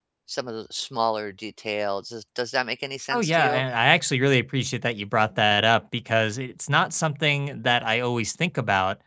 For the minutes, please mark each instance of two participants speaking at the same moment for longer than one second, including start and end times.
none

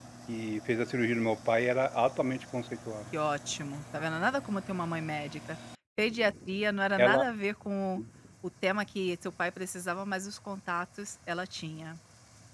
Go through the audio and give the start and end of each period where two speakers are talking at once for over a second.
none

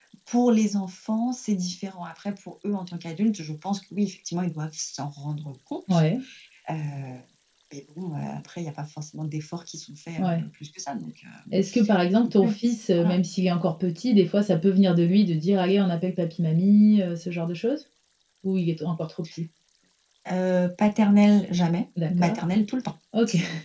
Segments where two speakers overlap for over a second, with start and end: none

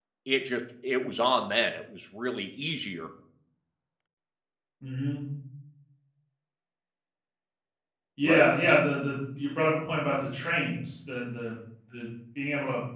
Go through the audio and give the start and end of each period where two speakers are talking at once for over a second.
none

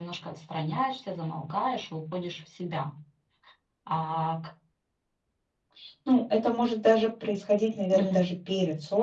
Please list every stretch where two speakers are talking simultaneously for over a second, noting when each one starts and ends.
none

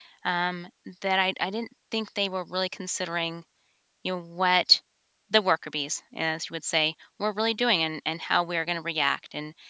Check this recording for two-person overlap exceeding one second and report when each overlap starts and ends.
none

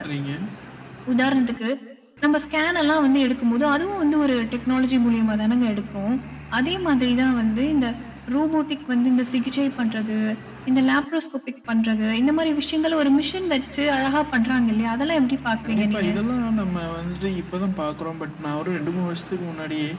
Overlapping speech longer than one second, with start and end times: none

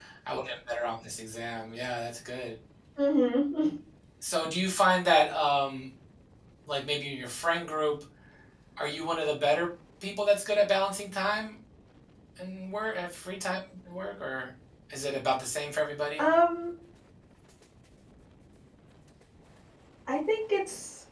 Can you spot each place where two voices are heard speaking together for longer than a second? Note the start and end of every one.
none

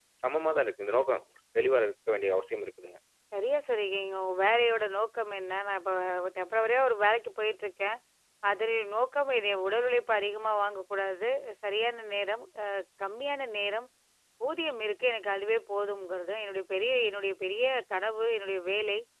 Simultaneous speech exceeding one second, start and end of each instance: none

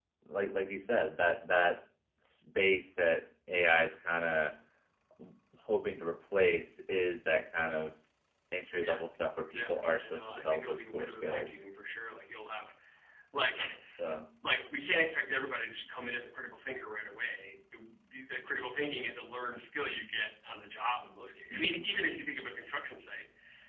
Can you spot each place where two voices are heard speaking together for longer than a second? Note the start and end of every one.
9.5-11.6

